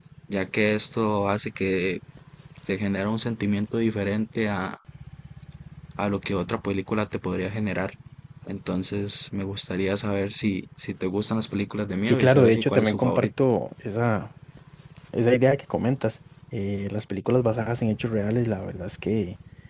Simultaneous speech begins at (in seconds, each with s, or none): 12.1 s